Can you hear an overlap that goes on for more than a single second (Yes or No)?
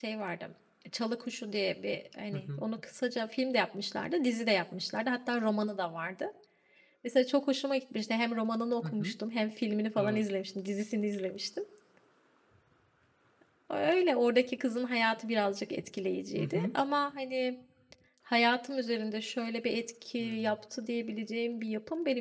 No